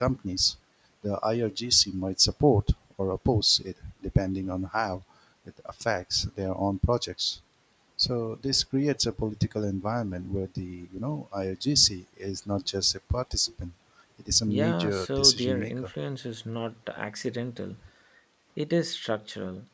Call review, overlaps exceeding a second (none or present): present